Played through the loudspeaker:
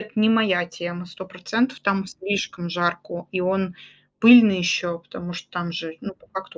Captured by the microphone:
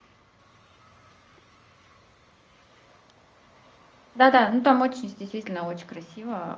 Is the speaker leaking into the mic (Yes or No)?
No